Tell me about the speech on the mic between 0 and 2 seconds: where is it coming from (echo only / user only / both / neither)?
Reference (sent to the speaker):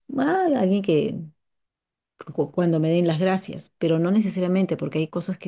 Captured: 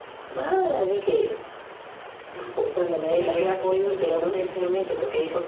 echo only